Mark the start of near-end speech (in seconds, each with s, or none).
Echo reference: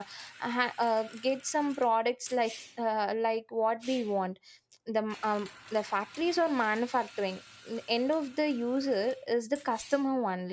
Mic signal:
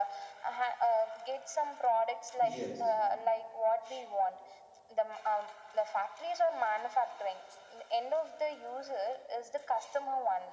2.4 s